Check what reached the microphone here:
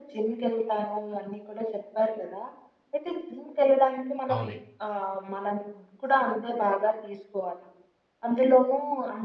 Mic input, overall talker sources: both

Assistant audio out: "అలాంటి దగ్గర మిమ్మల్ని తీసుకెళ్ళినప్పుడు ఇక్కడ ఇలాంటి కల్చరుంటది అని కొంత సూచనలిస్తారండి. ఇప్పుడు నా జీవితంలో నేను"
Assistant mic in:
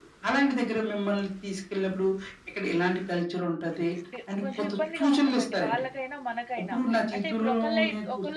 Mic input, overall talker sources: both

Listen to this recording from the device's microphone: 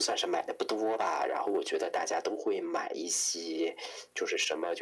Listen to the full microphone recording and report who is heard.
echo only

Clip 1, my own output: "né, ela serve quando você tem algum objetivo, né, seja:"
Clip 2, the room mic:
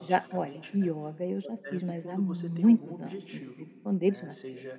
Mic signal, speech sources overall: both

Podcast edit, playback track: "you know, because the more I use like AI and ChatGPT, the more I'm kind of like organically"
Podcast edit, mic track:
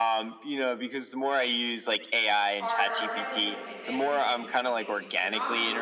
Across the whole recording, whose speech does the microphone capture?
both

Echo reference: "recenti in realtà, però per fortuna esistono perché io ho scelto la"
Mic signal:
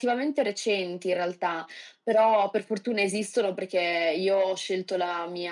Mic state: echo only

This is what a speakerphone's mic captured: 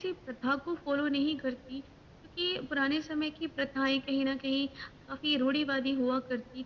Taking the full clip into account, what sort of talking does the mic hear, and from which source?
echo only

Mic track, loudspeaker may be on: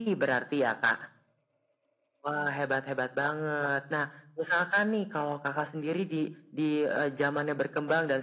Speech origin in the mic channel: echo only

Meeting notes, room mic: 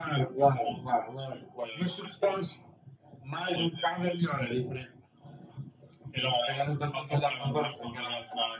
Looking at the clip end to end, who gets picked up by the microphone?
echo only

